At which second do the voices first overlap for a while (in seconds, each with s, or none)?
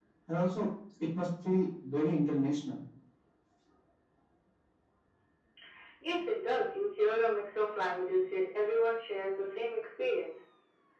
none